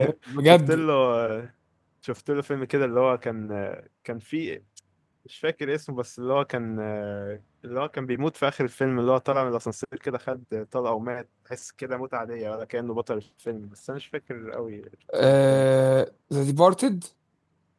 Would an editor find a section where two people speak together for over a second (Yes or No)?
No